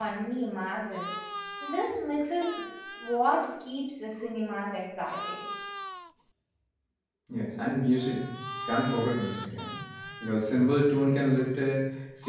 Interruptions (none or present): none